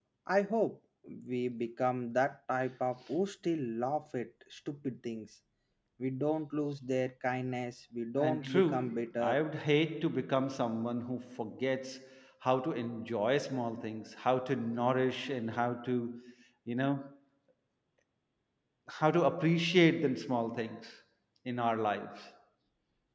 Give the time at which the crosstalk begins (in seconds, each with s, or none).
8.2 s